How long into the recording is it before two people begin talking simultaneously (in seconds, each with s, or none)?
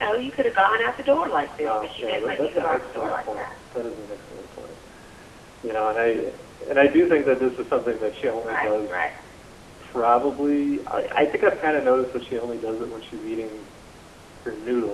1.6 s